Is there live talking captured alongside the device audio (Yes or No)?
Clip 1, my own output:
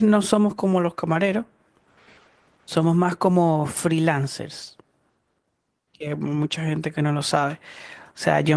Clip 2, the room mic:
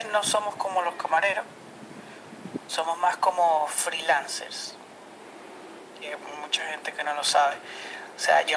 No